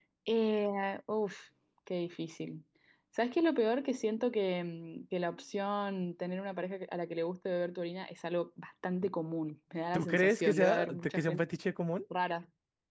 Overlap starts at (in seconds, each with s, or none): 9.9 s